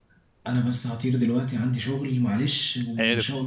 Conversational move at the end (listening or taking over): listening